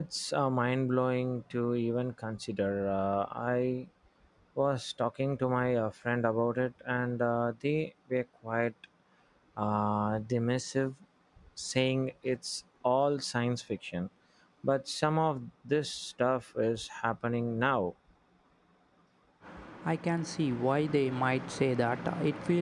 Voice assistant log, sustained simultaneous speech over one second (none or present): none